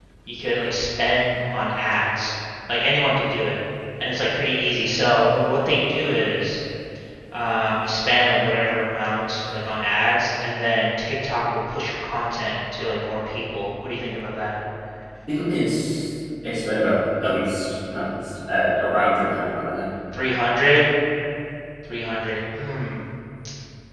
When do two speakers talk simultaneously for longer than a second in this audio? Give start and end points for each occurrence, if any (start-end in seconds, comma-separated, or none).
none